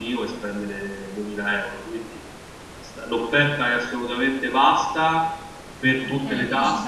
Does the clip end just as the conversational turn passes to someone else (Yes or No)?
Yes